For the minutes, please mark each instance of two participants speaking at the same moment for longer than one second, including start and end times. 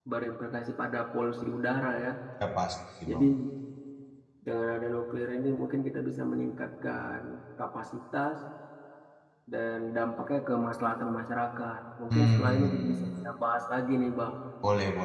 12.1-13.3

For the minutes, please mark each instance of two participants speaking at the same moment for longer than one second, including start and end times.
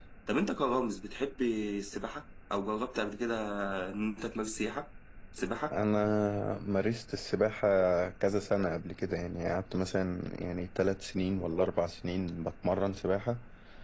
none

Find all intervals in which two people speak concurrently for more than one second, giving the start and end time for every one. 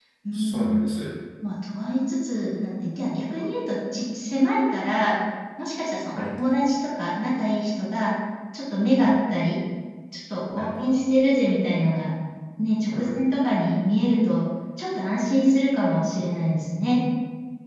none

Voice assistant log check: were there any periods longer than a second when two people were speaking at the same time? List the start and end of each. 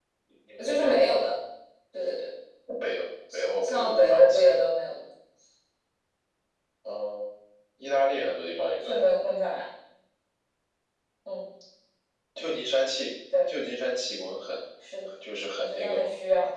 3.3-4.5

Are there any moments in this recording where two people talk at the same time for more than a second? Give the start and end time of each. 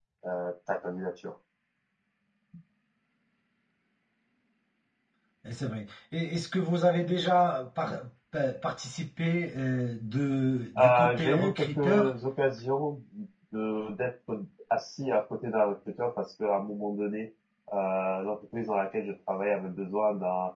10.8-12.1

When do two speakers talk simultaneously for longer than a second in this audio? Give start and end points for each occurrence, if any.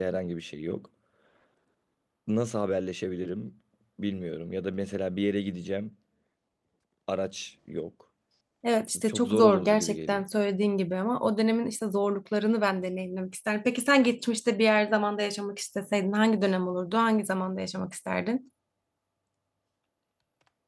9.0-10.2

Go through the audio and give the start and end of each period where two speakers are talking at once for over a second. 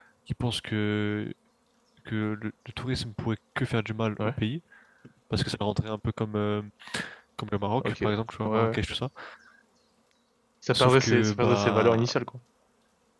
10.8-12.1

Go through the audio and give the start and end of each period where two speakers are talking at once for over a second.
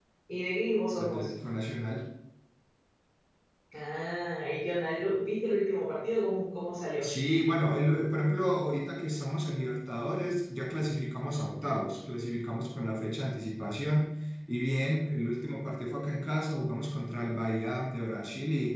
none

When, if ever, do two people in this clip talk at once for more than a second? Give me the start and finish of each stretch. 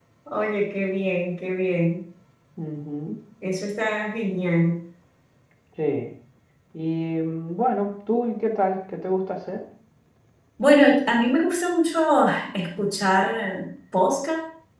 none

